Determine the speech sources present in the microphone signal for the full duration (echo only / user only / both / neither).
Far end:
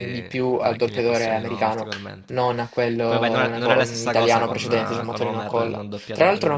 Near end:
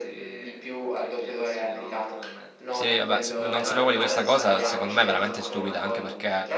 both